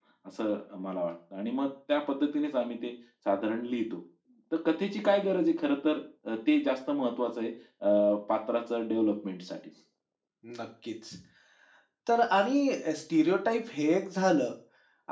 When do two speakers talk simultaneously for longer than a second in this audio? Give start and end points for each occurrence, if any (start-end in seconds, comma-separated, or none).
none